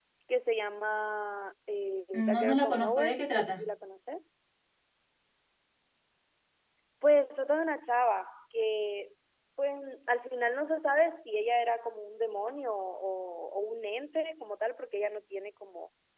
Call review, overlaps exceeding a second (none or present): present